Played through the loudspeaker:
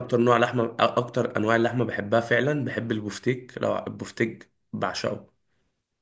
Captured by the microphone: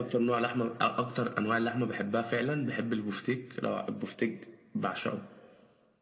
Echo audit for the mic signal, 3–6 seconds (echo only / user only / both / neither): echo only